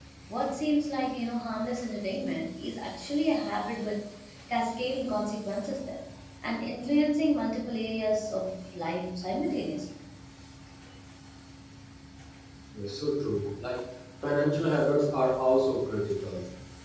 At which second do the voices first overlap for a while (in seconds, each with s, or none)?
none